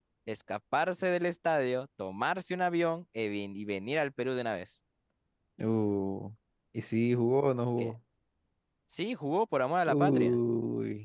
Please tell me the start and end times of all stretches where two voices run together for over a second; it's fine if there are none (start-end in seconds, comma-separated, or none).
none